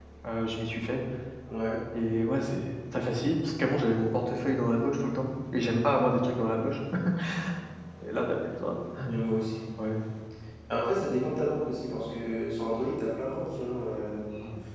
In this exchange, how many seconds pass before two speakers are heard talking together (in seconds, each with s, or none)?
none